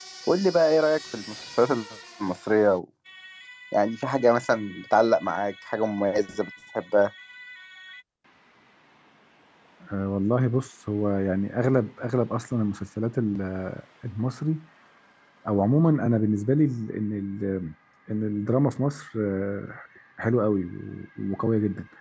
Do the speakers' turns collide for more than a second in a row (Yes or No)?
No